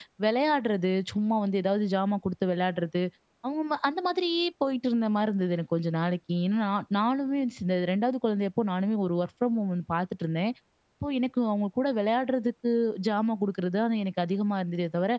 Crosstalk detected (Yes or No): No